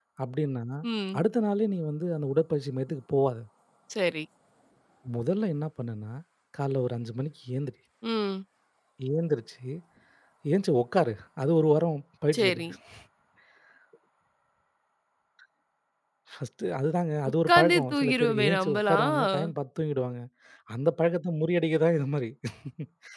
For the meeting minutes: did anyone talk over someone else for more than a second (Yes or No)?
Yes